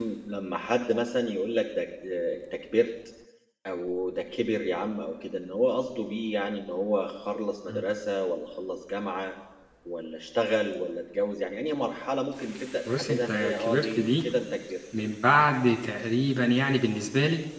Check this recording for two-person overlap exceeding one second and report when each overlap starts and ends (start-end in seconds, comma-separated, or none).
12.9-14.2